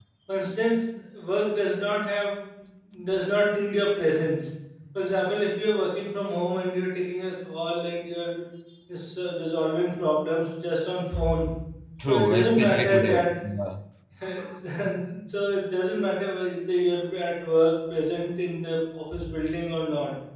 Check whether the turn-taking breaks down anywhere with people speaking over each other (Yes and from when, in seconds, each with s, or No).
Yes, from 12.1 s